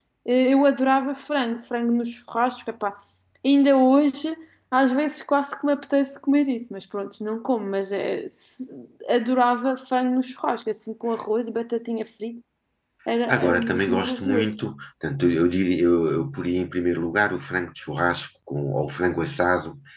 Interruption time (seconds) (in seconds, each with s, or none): 13.3 s